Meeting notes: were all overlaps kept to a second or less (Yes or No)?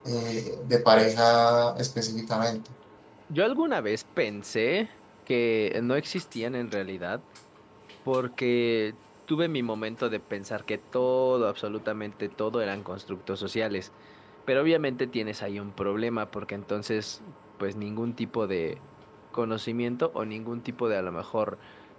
Yes